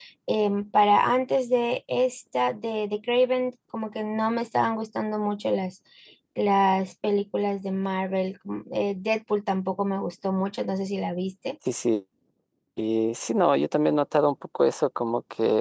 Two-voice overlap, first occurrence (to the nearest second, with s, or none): none